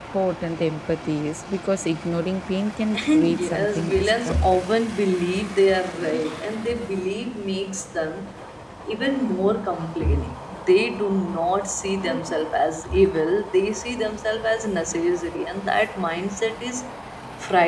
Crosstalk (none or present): present